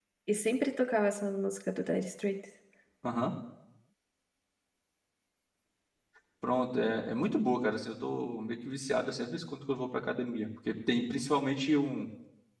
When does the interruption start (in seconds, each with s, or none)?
none